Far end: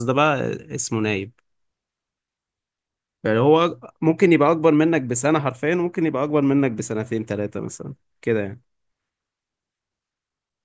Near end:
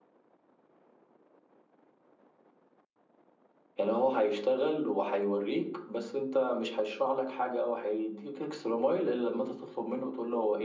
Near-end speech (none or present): present